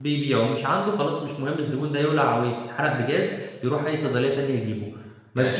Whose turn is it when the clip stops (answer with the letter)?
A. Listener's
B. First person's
A